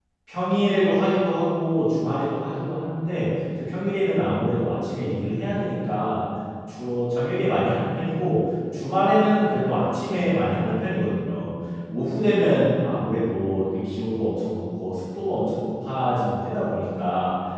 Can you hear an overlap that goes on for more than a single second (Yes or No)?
No